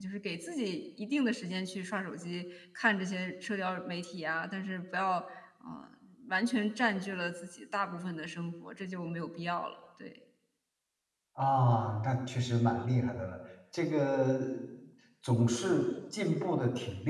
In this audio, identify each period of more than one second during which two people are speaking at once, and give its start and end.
none

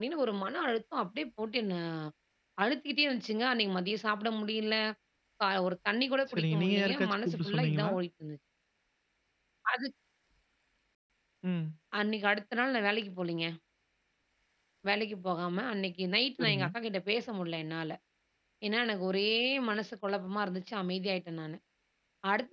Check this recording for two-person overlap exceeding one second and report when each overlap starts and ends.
6.3-7.9

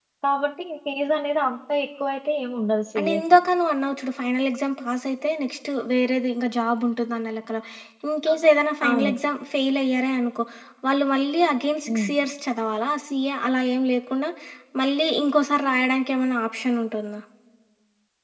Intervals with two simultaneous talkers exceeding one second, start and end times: none

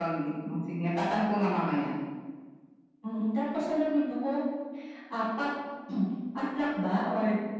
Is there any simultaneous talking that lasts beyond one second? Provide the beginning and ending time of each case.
none

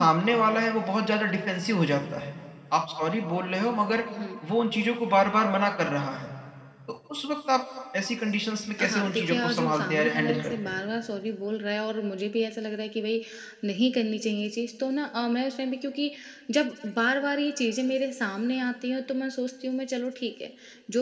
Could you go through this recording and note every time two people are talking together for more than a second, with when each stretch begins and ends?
8.8-10.8

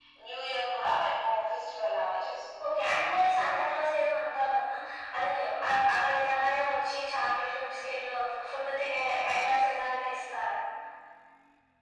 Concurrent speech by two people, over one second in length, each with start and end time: none

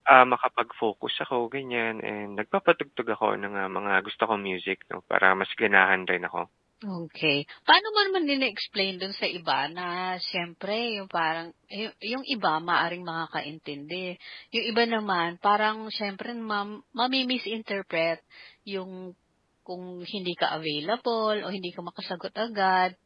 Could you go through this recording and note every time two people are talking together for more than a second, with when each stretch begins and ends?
none

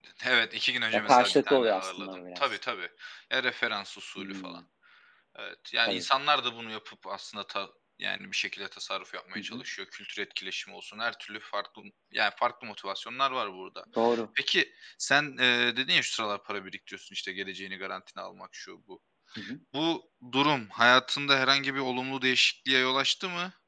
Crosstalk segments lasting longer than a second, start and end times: 0.9-2.4

